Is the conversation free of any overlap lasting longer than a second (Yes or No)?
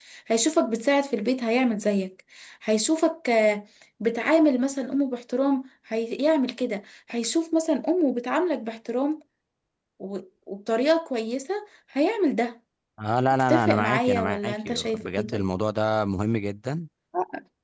No